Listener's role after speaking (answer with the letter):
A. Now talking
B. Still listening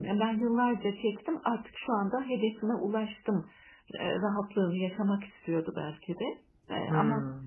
B